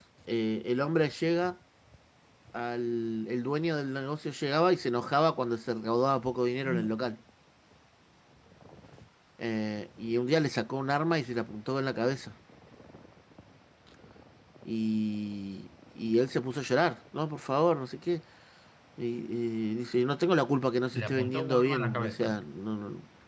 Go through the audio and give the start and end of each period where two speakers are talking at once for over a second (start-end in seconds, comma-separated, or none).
20.9-22.4